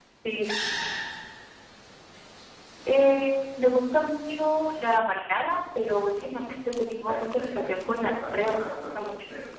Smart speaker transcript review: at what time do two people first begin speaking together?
7.0 s

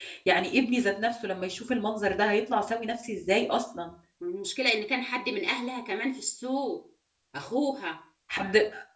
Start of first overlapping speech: none

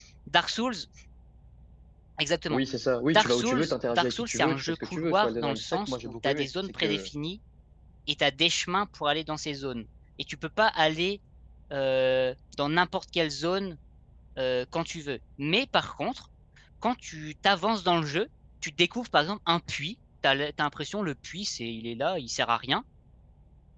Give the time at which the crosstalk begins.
3.1 s

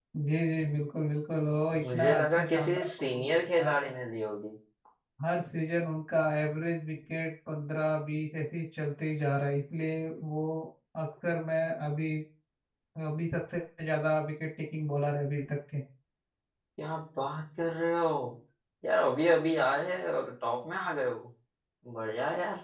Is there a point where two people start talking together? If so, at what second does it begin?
1.7 s

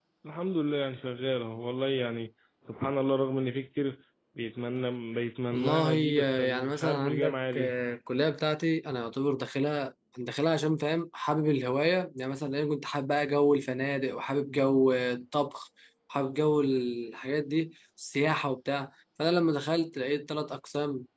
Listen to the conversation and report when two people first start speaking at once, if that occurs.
5.5 s

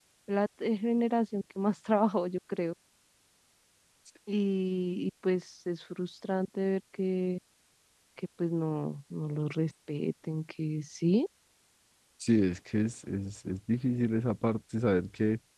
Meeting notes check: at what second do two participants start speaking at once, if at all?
none

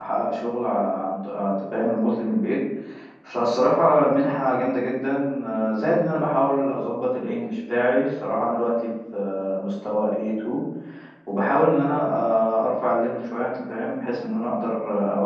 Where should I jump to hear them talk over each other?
none

